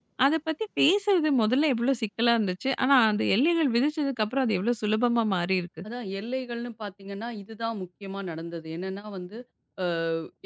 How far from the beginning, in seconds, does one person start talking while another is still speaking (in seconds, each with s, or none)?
none